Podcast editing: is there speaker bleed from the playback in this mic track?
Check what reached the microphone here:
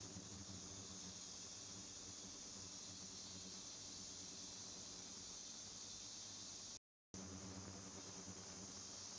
No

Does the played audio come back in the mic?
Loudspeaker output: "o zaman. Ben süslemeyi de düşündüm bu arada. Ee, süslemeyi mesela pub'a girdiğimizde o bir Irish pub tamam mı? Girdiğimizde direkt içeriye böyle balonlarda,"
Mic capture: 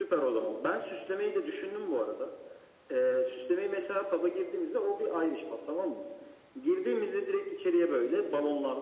Yes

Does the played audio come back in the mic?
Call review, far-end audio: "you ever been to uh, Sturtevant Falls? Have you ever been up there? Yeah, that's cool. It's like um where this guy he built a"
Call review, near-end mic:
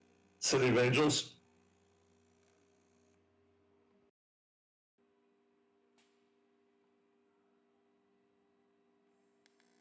No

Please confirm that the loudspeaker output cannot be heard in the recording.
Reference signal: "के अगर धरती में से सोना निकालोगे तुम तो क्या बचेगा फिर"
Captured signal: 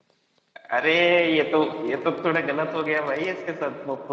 Yes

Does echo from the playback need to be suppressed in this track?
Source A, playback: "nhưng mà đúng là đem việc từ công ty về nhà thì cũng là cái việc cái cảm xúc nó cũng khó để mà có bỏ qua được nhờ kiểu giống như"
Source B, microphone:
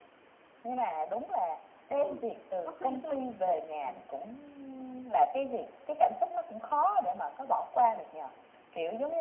Yes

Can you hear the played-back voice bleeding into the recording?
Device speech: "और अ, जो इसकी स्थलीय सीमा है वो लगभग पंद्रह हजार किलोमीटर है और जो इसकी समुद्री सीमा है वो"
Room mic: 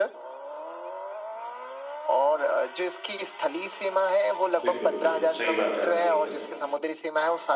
Yes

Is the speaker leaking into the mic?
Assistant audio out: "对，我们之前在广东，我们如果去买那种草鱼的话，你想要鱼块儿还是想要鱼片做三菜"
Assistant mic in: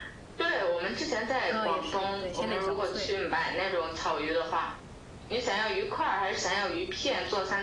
Yes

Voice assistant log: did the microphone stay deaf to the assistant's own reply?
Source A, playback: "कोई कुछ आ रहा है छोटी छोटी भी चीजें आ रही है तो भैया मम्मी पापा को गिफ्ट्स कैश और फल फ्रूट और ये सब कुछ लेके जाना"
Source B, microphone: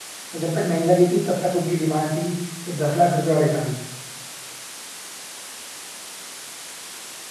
Yes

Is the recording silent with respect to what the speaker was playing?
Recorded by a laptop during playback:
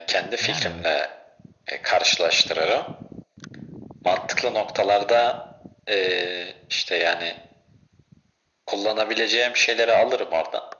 No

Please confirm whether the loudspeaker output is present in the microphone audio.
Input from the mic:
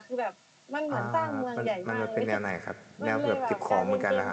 Yes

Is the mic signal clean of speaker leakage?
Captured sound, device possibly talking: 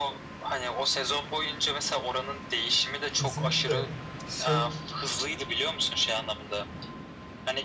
No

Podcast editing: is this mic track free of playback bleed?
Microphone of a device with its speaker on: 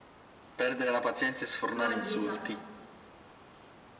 No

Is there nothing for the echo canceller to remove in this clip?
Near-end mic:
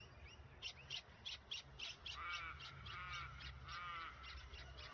Yes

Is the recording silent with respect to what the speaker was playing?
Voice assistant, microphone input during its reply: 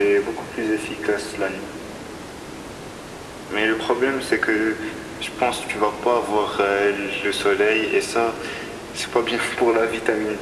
No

